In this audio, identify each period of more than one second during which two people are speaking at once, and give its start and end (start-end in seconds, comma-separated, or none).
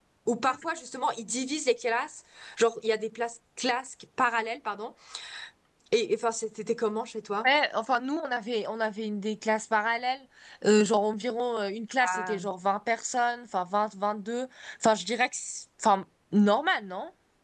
none